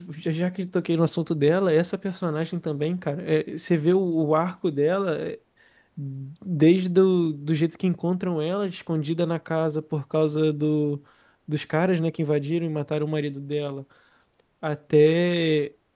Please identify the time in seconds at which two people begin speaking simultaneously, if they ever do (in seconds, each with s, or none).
none